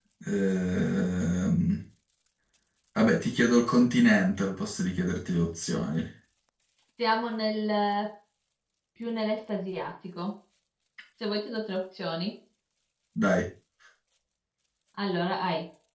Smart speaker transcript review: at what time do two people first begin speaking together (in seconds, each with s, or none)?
none